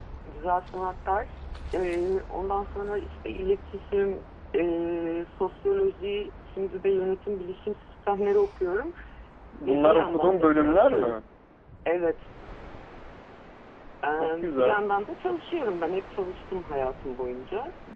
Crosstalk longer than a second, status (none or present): present